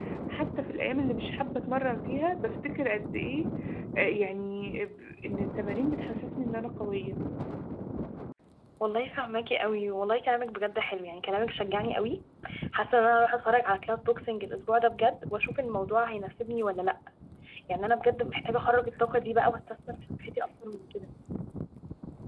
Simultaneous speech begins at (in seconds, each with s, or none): none